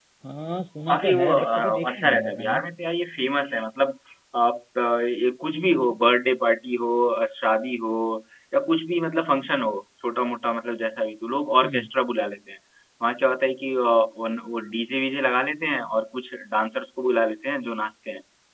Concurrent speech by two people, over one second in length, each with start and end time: 0.9-2.6

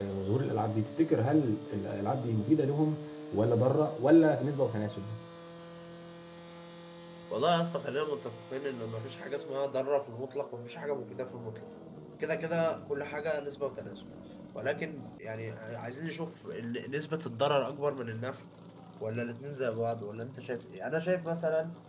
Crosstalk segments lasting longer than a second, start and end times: none

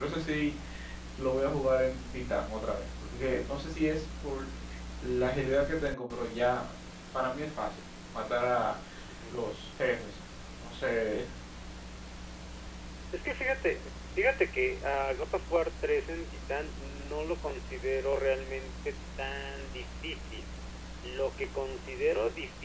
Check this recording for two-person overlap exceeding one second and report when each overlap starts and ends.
none

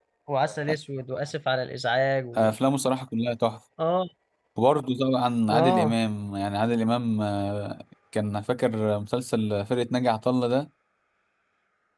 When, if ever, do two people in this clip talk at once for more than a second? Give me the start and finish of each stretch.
none

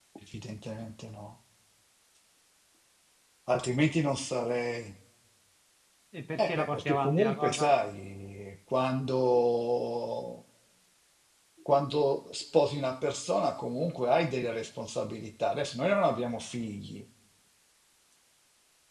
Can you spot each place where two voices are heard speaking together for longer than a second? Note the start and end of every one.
6.4-7.7

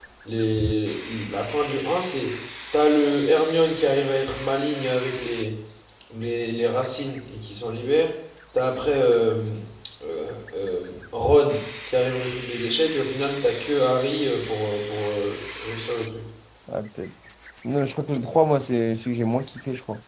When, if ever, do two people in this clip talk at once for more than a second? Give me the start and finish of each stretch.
none

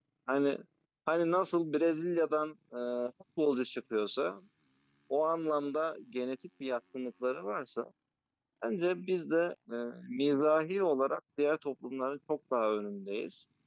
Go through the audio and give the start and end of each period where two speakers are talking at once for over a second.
none

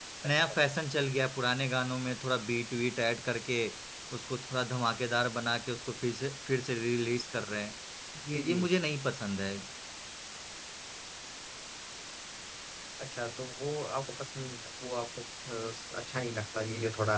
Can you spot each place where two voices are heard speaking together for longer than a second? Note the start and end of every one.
none

